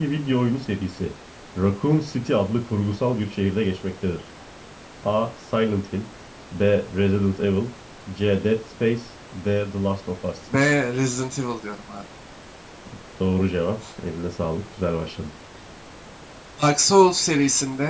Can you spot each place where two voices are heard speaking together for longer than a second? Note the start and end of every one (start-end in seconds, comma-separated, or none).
none